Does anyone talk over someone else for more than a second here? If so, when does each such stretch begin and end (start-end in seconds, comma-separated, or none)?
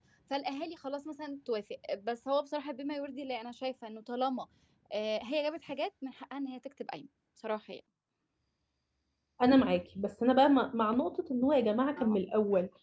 none